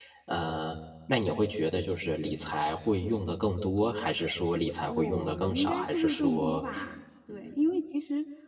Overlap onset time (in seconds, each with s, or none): 4.9 s